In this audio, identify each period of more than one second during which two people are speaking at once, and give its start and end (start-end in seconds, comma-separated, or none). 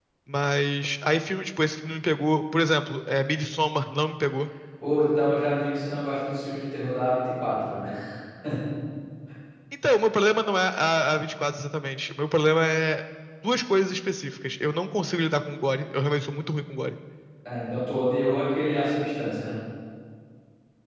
none